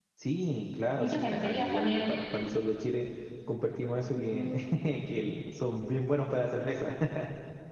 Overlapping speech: Yes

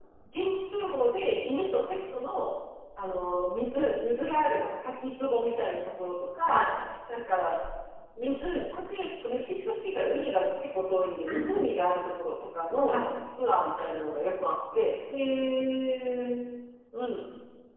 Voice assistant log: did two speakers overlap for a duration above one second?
No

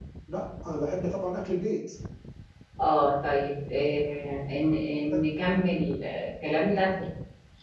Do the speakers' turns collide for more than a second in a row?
No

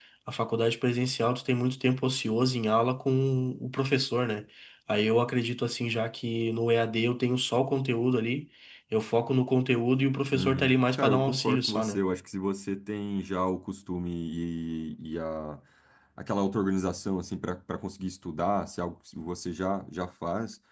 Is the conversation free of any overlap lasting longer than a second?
No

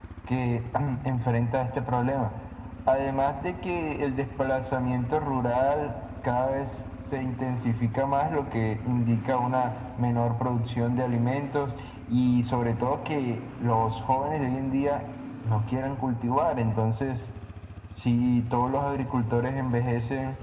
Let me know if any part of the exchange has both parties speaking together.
No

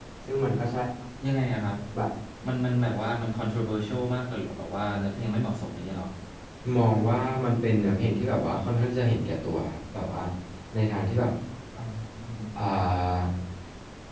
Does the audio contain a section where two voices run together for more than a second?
No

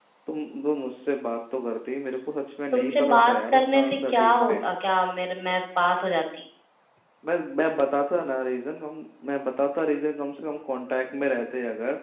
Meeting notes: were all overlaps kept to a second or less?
No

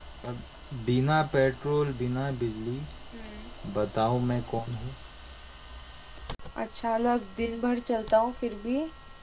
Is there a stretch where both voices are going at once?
No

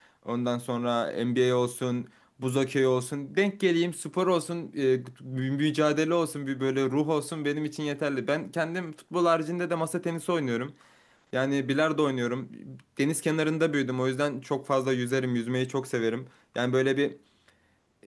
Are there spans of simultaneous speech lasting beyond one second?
No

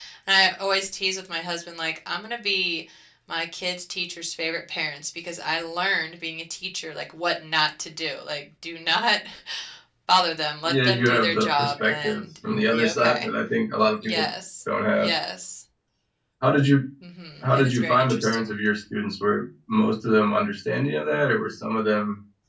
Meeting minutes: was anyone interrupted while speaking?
Yes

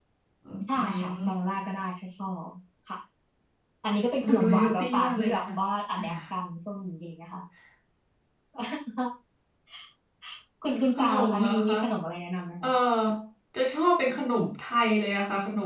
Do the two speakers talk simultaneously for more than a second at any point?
Yes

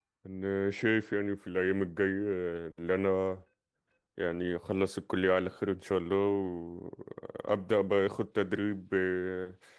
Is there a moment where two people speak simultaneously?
No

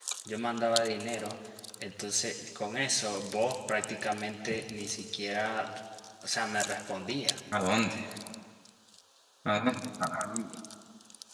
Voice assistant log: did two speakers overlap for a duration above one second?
No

